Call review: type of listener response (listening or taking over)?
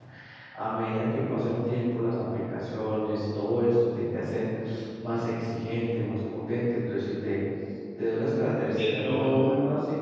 listening